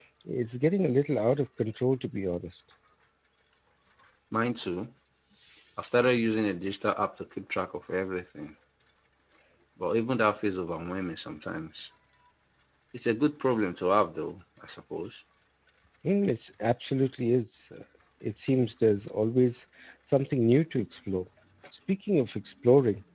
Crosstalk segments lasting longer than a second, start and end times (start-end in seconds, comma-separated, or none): none